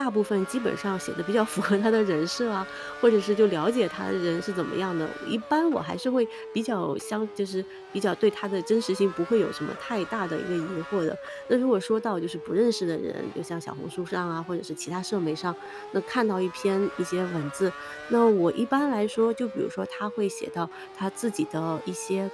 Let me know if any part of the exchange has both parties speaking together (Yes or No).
No